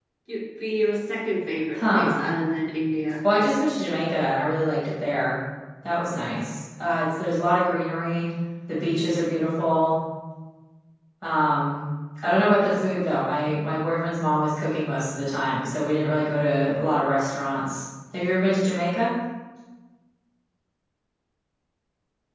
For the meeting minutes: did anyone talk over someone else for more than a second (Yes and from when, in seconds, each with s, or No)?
No